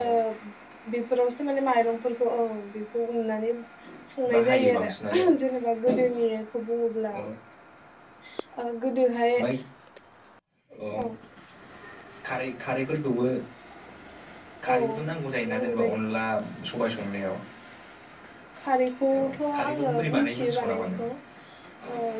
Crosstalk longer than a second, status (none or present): present